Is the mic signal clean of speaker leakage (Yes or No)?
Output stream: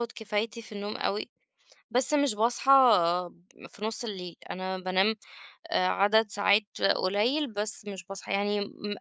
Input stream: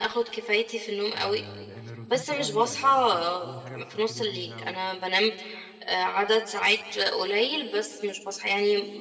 No